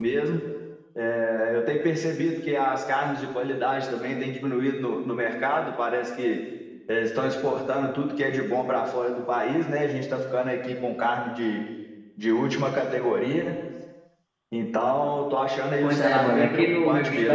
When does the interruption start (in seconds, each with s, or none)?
15.8 s